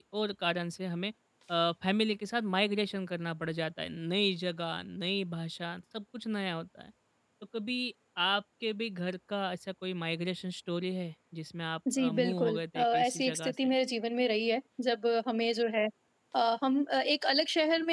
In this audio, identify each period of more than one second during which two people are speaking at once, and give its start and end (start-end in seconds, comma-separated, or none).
12.0-13.7